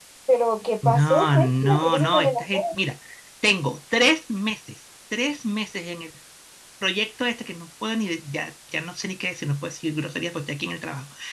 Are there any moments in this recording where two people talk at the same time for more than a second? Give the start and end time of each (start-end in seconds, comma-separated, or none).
0.8-2.6